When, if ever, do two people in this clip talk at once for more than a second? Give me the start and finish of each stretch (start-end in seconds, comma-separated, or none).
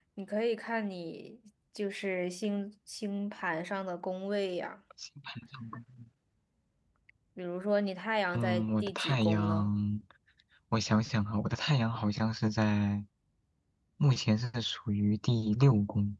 8.3-9.7